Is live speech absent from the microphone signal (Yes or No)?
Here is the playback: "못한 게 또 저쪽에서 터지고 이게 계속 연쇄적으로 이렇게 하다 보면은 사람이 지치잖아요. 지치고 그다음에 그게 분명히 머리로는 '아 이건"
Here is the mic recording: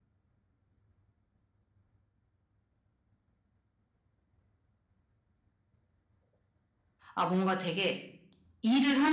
No